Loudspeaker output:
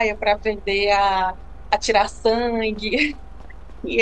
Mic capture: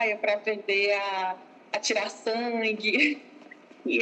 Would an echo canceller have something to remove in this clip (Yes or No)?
Yes